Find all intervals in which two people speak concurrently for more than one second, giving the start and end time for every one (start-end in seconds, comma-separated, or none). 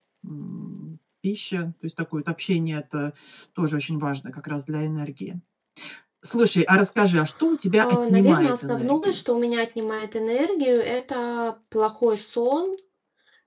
7.8-9.2